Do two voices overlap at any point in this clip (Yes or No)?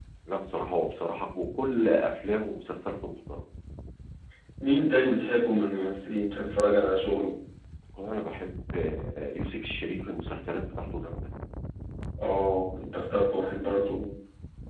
No